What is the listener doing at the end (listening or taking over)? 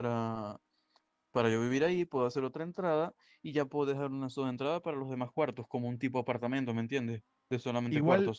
taking over